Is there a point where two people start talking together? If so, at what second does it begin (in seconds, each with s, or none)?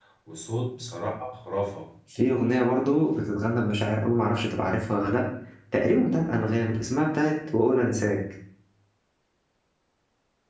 none